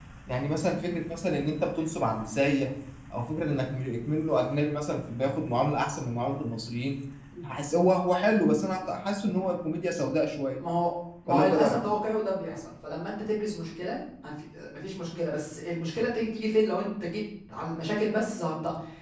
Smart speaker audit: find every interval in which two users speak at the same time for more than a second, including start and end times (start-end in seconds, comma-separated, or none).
none